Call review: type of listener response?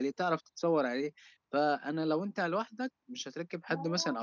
listening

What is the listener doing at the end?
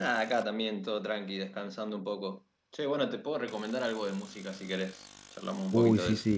taking over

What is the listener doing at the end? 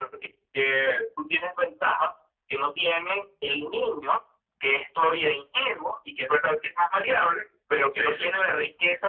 listening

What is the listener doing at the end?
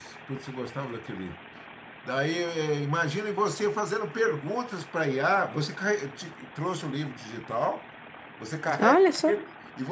listening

